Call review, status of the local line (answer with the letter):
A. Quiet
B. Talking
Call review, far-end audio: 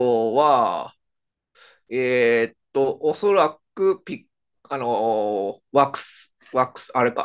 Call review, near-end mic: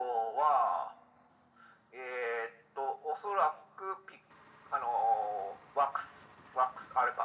A